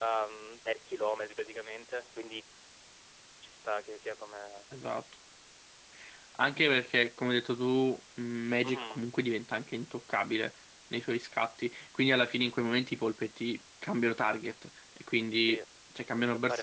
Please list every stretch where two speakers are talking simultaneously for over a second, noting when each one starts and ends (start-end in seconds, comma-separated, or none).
none